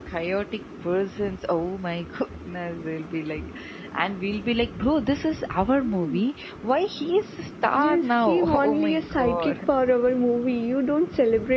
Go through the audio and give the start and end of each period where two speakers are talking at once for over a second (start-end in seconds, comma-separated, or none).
7.7-9.5